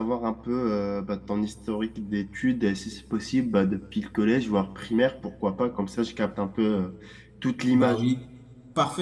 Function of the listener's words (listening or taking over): taking over